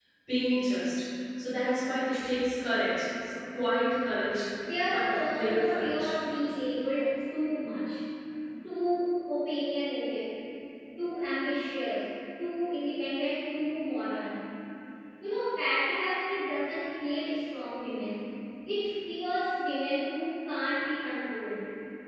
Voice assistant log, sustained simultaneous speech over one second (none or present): present